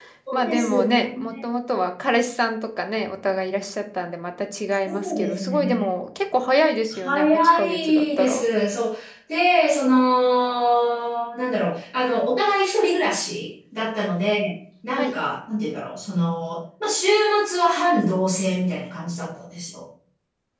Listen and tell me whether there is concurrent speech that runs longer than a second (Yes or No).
Yes